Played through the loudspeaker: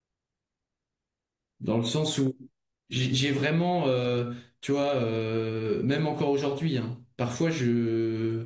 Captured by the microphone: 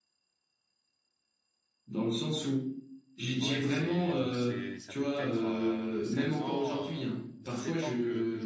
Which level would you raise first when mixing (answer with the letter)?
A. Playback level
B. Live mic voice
B